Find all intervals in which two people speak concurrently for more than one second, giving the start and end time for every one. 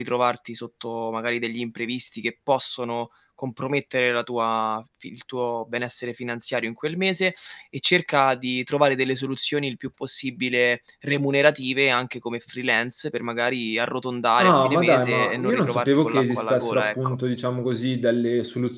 14.4-17.2

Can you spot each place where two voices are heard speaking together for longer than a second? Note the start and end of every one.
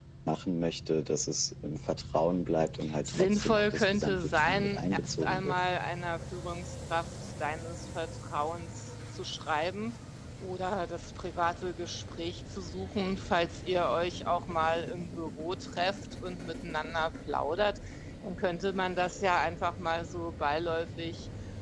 3.0-5.6

